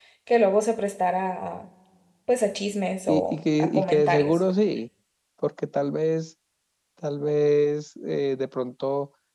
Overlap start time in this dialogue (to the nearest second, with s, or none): 3 s